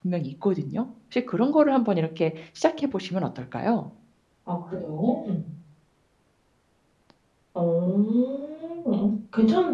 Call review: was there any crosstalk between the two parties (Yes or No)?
No